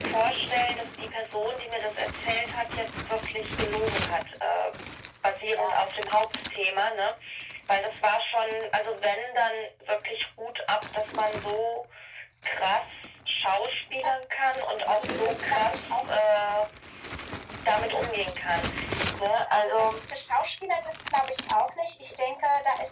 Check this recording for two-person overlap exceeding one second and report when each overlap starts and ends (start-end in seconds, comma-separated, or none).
14.9-16.2